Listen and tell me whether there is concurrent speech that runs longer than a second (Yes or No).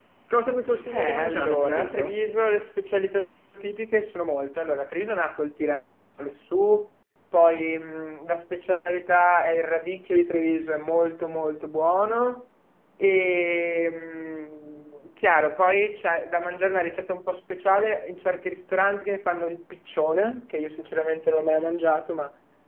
Yes